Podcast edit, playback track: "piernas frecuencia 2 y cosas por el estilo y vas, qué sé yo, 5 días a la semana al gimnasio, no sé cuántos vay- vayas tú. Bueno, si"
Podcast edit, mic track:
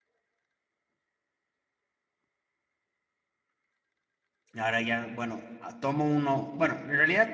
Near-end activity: present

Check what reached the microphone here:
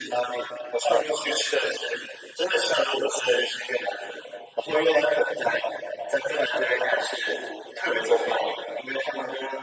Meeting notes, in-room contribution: none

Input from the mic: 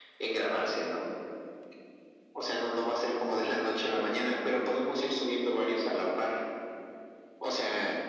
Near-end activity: none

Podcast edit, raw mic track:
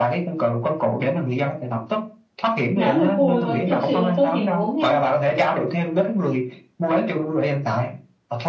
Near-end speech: present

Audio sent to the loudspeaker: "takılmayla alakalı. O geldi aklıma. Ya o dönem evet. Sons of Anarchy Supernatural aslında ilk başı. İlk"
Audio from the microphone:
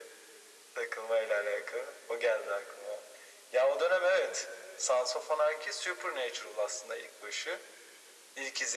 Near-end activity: none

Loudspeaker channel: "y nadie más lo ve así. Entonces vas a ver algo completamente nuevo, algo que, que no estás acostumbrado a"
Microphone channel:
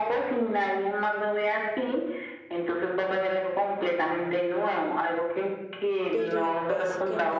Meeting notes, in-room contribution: present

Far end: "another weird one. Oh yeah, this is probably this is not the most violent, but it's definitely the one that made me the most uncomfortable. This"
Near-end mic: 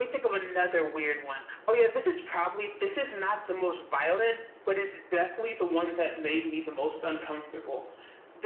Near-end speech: none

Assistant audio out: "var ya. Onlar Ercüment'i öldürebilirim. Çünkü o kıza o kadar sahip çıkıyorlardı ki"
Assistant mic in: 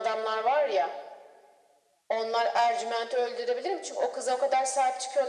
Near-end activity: none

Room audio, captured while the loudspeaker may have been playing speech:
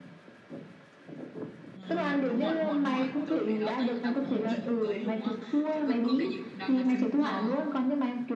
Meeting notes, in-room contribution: present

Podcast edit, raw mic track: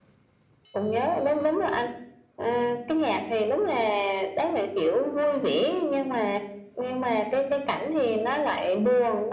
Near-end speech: none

